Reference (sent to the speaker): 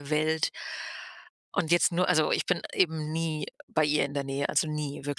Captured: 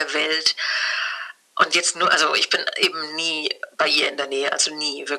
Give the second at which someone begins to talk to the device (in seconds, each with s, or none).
none